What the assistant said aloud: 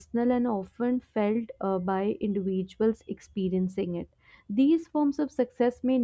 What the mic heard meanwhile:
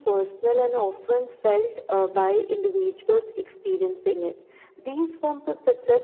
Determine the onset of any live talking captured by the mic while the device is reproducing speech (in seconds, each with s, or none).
none